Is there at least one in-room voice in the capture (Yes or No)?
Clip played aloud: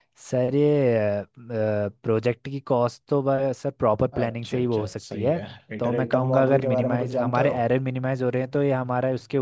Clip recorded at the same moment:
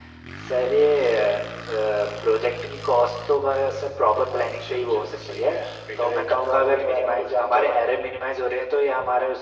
No